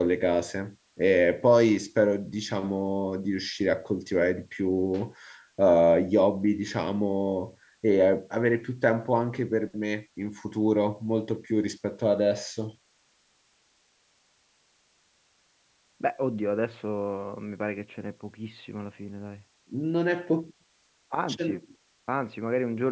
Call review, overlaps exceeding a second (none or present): none